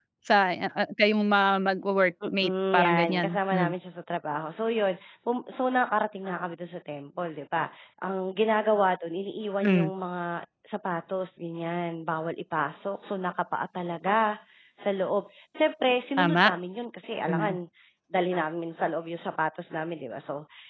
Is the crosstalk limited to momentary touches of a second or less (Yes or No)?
No